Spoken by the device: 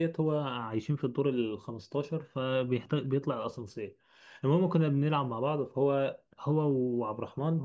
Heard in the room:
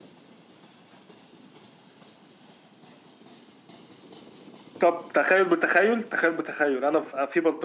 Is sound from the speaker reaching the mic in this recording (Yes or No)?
No